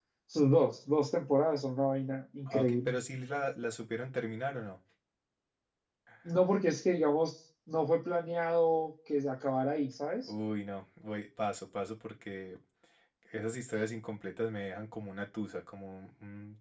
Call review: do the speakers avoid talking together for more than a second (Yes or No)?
Yes